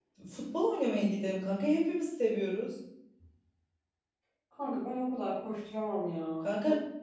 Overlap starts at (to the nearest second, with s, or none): none